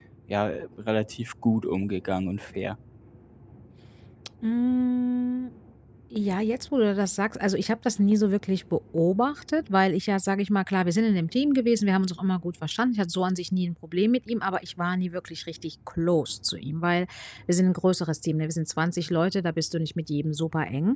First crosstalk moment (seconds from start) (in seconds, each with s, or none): none